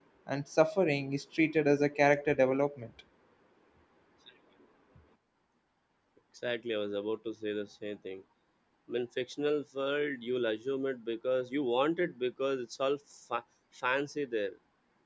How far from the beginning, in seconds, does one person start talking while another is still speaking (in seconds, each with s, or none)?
none